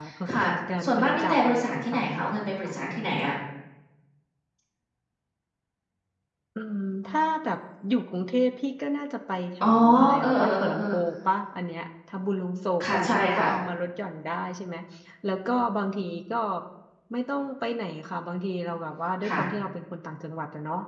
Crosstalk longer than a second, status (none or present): present